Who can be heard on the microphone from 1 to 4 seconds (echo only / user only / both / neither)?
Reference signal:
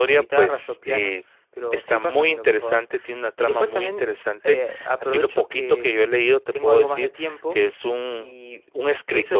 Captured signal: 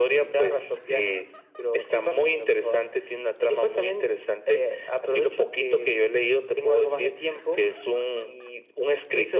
echo only